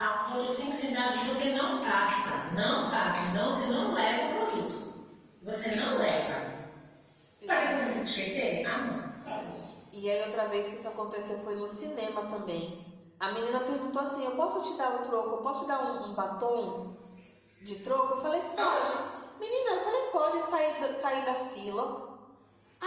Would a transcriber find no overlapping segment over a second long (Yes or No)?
Yes